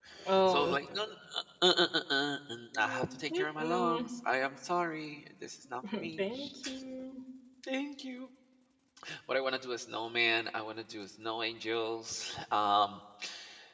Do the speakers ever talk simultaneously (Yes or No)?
Yes